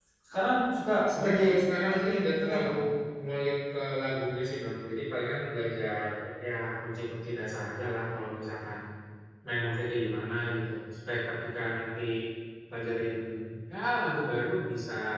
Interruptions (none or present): present